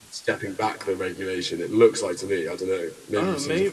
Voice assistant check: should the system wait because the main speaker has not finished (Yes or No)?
No